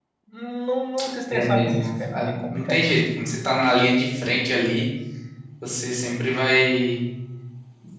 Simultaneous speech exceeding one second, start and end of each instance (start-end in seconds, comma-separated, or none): 1.3-3.0